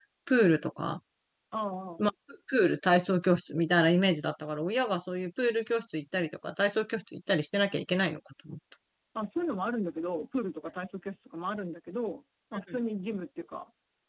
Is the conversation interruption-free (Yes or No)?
Yes